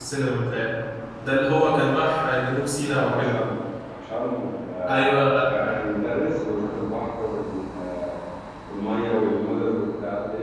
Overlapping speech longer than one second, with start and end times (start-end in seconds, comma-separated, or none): none